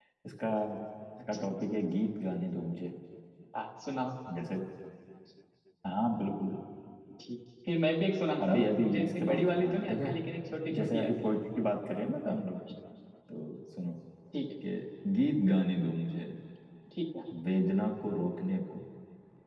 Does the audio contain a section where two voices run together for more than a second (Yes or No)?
Yes